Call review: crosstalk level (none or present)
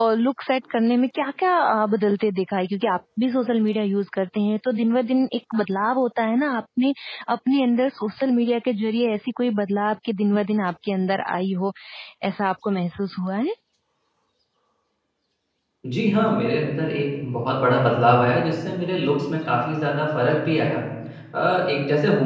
none